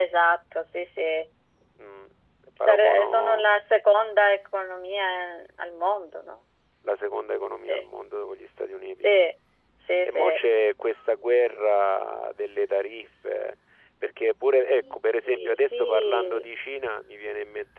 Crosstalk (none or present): present